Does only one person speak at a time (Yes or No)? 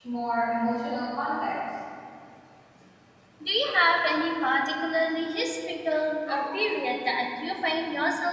Yes